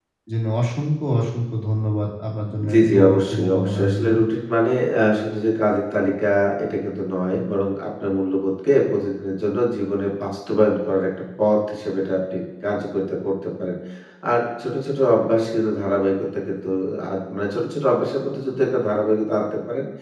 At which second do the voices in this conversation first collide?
3 s

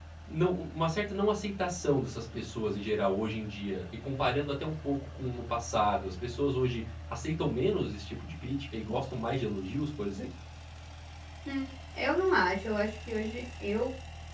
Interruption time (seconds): none

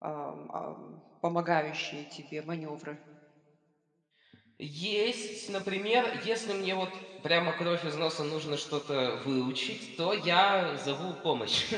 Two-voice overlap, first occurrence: none

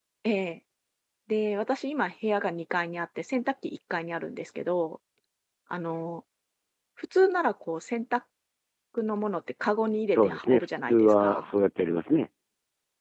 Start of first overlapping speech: 10 s

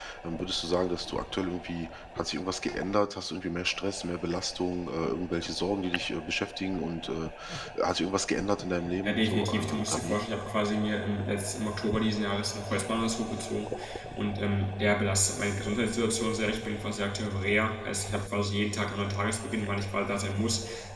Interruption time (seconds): 9 s

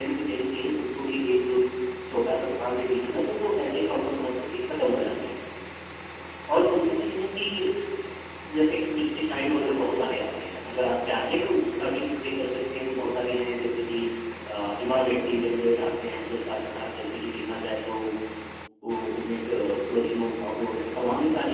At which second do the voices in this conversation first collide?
none

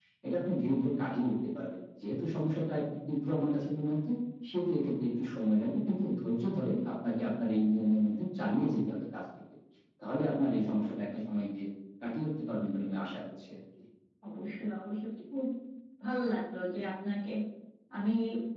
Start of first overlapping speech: none

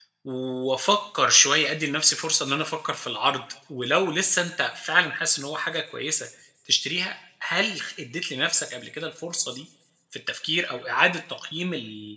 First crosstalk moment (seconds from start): none

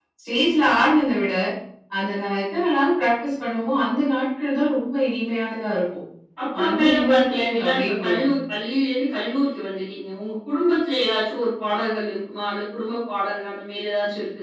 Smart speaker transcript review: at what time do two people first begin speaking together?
7 s

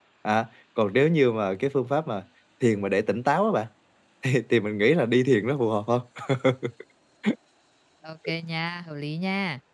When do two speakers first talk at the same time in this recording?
none

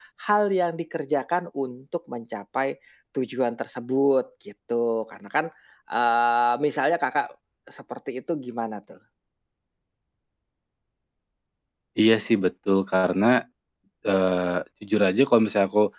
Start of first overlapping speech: none

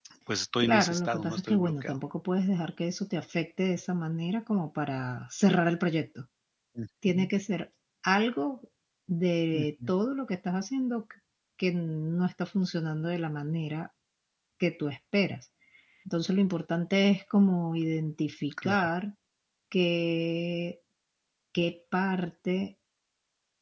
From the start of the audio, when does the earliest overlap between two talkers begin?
1 s

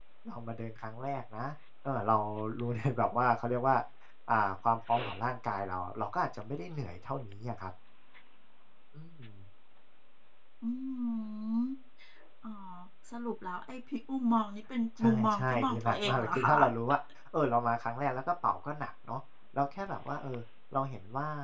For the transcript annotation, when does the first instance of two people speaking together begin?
15 s

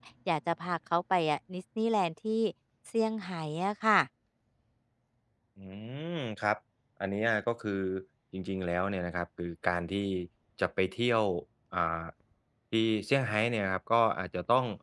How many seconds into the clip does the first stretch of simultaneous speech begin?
none

